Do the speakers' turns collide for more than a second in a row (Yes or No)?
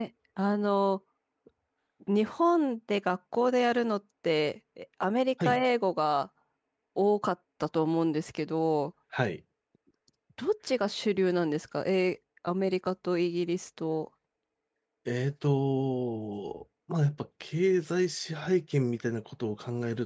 No